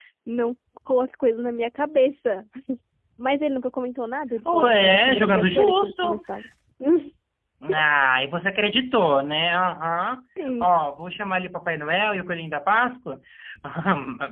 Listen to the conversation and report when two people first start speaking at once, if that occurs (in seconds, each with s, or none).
4.4 s